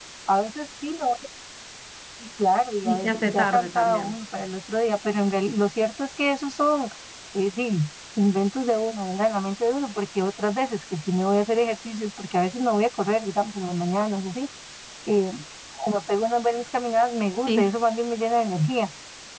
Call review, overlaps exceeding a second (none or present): present